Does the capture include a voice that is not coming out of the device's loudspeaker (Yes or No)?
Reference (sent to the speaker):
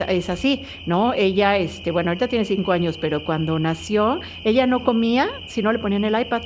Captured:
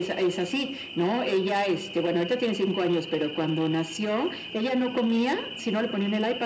No